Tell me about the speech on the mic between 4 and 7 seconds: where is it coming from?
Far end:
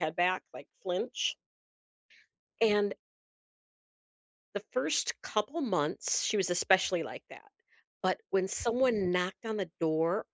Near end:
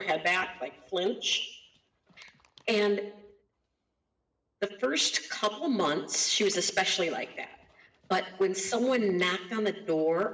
echo only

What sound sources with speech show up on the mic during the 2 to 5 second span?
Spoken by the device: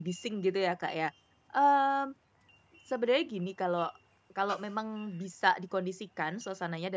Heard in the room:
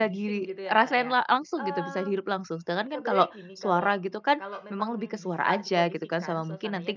both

